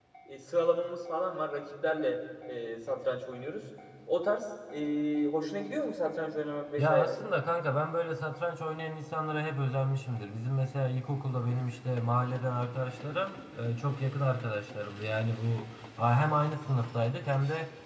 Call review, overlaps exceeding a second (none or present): none